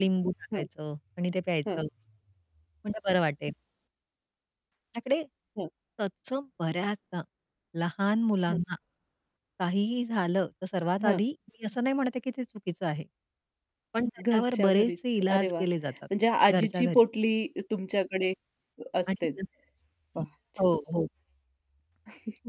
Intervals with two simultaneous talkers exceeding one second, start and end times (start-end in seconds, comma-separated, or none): 14.3-15.6